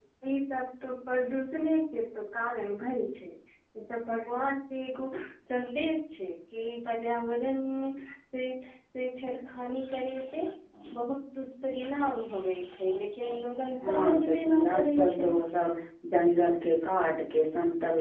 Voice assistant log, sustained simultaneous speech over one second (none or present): present